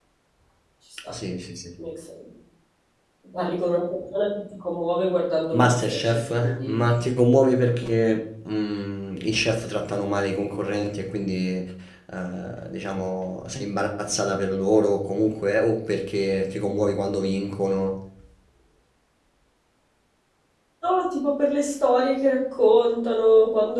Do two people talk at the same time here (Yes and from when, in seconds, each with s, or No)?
Yes, from 5.5 s